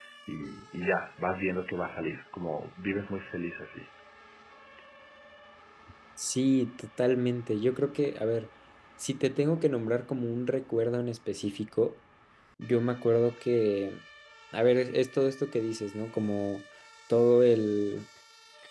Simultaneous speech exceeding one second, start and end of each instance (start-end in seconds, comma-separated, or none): none